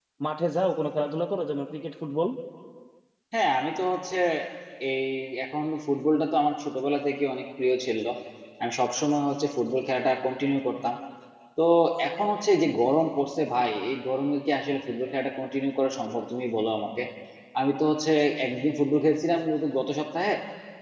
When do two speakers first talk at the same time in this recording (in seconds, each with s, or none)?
none